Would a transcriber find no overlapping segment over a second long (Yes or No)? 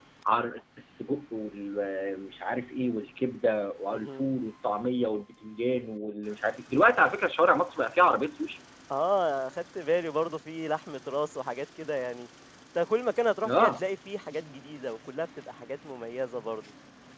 Yes